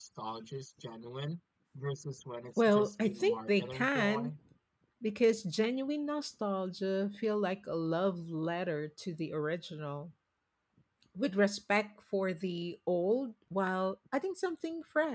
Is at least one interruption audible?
Yes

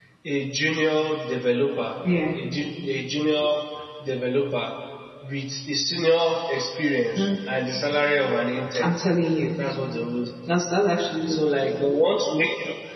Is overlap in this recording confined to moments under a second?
Yes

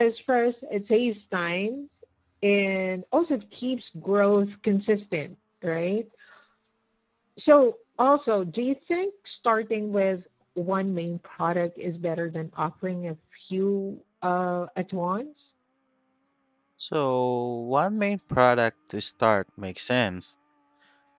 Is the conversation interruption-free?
Yes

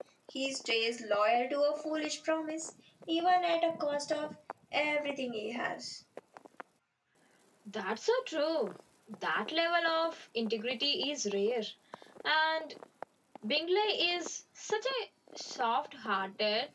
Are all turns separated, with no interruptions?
Yes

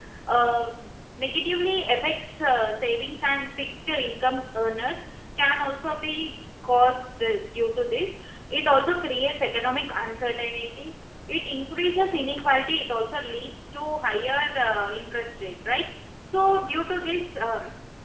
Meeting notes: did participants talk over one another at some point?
No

